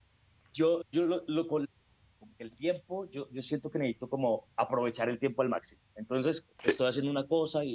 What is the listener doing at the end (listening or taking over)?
listening